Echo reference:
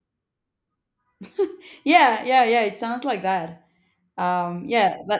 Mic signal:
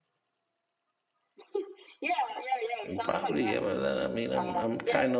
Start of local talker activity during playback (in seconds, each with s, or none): 2.8 s